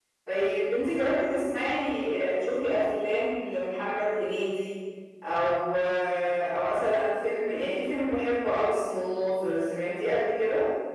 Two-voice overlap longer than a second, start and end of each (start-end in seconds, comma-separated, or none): none